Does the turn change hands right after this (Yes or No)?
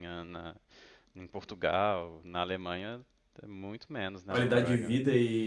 Yes